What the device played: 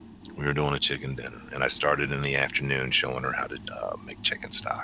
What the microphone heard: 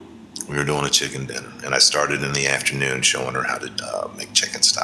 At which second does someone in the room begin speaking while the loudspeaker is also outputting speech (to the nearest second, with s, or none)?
none